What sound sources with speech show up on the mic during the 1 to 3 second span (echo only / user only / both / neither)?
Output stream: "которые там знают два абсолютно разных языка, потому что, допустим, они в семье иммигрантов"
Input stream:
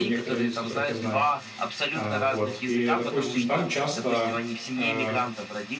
both